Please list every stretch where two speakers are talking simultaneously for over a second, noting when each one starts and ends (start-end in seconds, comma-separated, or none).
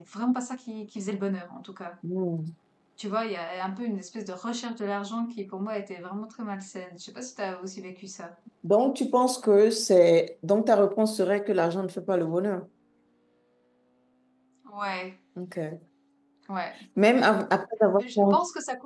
none